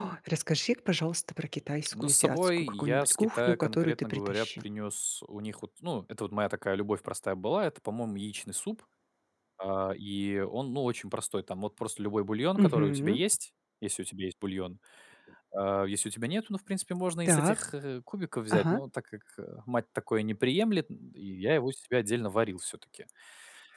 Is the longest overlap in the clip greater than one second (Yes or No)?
Yes